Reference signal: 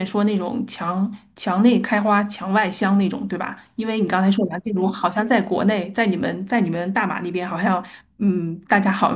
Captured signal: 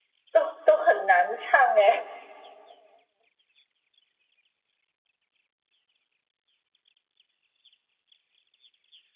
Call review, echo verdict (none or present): none